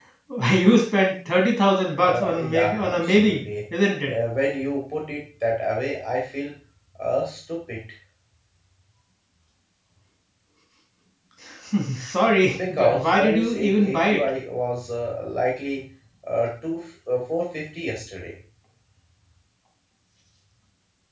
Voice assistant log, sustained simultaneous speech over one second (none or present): present